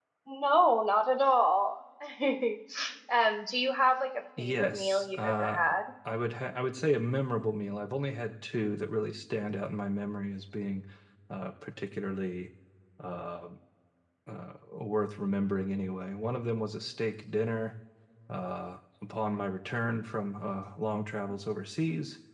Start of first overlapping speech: 4.4 s

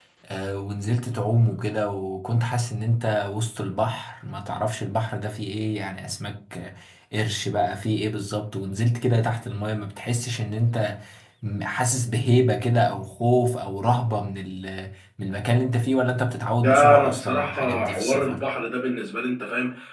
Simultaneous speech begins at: 16.6 s

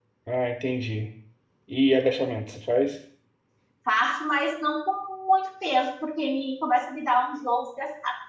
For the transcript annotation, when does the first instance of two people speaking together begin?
none

